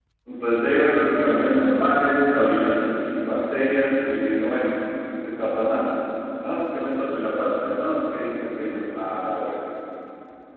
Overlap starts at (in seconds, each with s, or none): none